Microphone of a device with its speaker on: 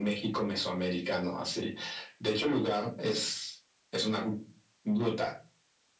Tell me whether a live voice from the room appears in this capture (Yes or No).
No